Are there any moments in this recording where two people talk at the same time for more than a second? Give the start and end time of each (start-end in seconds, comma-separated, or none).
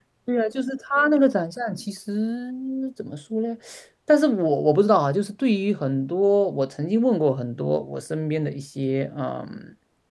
none